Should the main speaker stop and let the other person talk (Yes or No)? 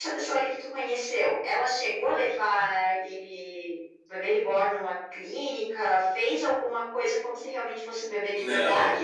Yes